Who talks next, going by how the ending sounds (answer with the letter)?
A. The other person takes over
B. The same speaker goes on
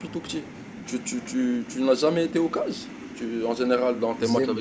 A